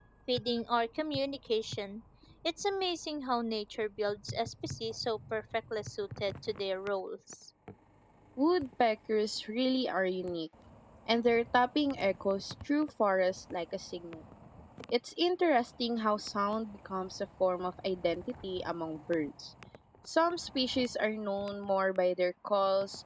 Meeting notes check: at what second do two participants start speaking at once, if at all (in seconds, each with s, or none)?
none